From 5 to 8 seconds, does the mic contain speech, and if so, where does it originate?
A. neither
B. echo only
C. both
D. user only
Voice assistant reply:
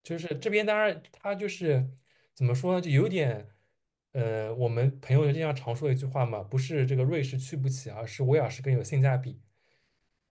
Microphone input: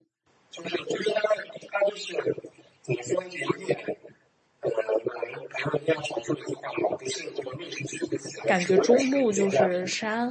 B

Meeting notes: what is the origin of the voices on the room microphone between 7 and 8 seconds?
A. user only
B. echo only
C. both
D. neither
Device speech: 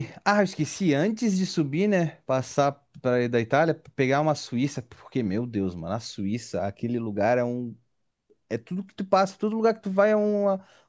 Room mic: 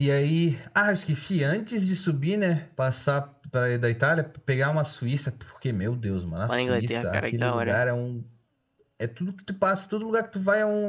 C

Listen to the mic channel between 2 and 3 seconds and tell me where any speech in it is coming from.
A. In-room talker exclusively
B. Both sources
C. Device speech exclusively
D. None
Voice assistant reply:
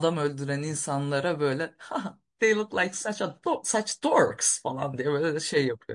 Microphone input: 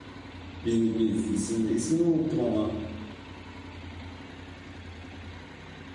A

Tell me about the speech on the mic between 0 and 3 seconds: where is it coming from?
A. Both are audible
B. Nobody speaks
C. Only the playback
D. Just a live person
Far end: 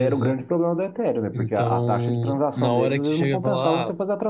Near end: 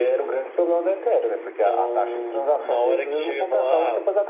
C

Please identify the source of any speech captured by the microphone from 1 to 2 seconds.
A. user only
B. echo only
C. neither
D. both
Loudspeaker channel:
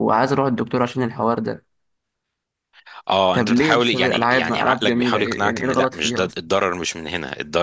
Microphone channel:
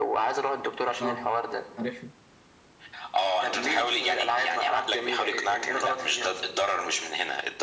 D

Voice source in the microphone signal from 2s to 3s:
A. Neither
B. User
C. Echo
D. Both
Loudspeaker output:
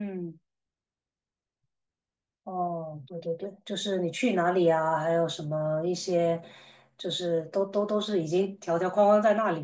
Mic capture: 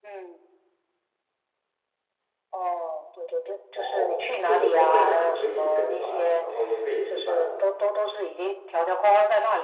C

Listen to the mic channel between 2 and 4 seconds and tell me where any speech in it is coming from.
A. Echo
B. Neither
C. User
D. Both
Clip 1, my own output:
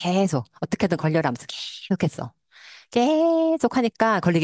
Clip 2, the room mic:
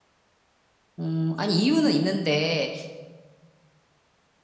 C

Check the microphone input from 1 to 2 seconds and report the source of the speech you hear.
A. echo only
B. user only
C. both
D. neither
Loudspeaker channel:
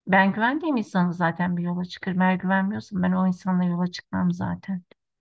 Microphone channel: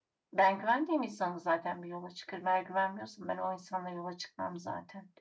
A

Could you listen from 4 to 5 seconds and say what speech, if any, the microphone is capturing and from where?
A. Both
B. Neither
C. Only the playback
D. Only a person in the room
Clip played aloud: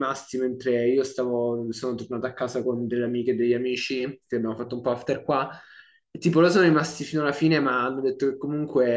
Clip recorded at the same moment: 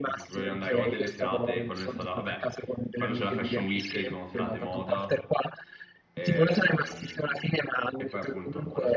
A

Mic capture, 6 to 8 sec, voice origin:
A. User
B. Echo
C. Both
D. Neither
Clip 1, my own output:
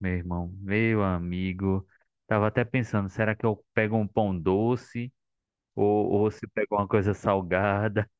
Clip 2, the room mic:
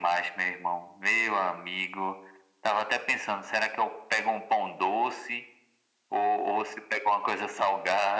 B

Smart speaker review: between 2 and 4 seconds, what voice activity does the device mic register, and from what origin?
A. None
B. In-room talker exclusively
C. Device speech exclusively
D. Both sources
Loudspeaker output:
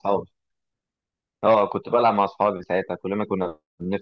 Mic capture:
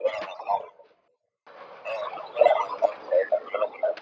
C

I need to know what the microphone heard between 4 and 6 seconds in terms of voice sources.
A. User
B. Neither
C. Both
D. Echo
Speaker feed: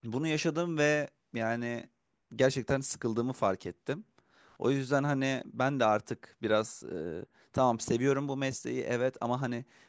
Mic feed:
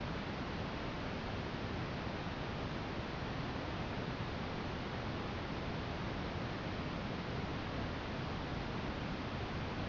B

